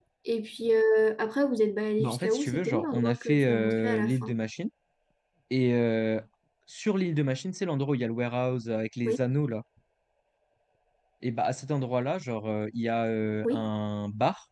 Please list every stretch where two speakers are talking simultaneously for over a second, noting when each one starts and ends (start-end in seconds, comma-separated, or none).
2.0-4.4